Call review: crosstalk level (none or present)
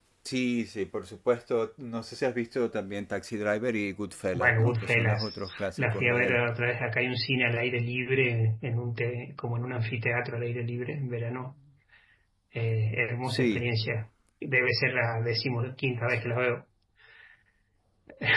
present